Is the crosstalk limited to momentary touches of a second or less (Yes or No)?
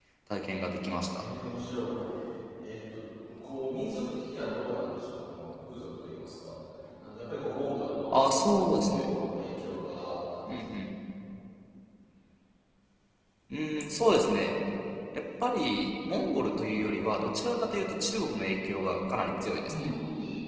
Yes